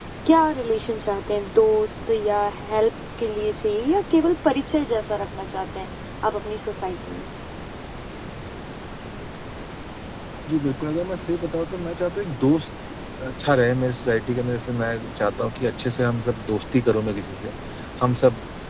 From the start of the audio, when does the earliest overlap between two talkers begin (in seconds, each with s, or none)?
none